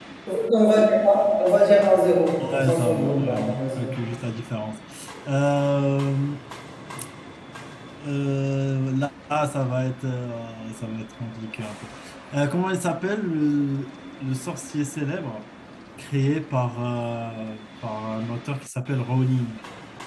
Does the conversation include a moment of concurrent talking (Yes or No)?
Yes